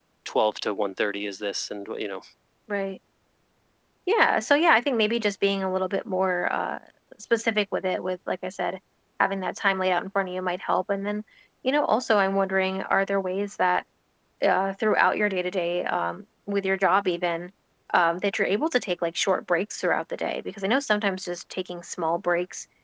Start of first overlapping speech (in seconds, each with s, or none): none